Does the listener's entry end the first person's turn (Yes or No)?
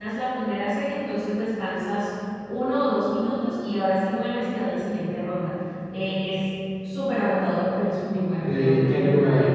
Yes